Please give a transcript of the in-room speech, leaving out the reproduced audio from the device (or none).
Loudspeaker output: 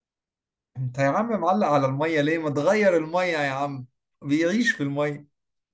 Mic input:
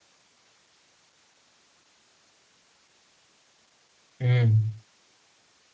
امم